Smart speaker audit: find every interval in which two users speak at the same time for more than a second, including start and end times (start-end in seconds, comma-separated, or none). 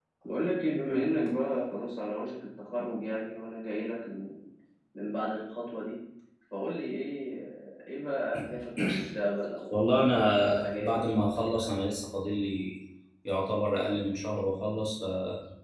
9.7-11.8